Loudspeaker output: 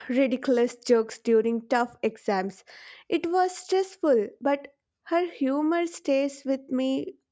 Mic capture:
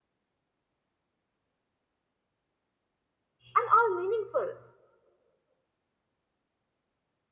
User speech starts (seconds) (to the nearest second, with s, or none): 4 s